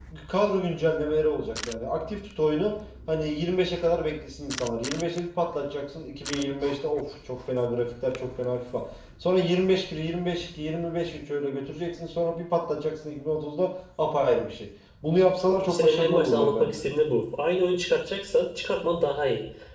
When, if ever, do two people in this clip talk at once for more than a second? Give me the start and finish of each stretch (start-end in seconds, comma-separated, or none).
15.6-16.9